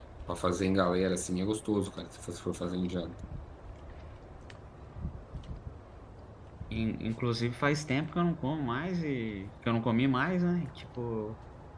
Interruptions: none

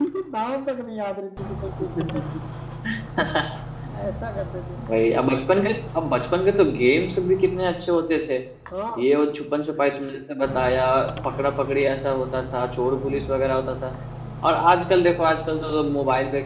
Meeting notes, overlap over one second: none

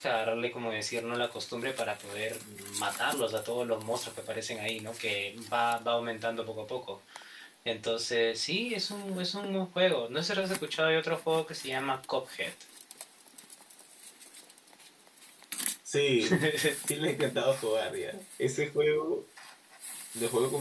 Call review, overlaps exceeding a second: none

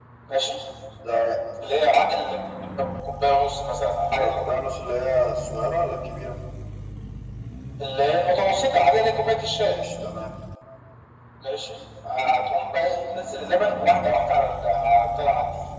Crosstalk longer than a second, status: none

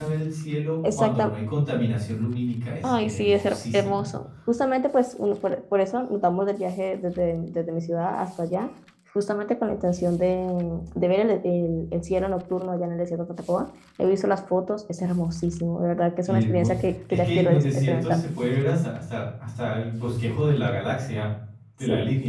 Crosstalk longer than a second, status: present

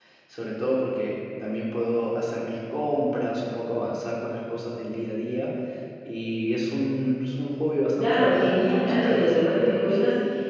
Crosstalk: present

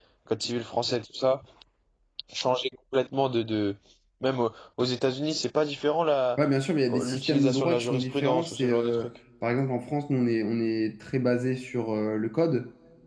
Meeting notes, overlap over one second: present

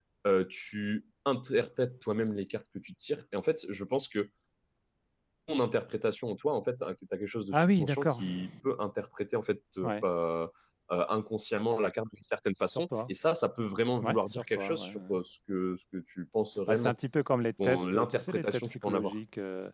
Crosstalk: present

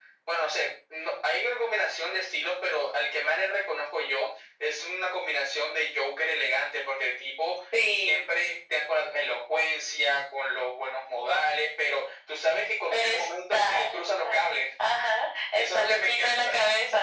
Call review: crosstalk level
present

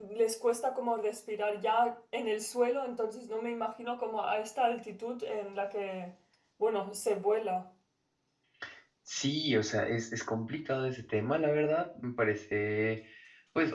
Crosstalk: none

